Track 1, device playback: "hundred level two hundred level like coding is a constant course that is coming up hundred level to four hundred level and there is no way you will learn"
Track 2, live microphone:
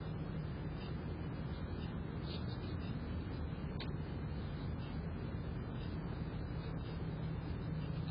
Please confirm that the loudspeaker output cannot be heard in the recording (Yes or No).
Yes